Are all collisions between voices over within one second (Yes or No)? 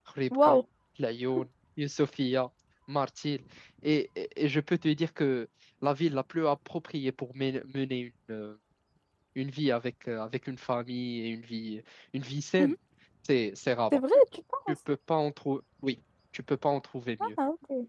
Yes